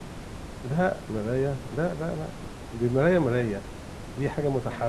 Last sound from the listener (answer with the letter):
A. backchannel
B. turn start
A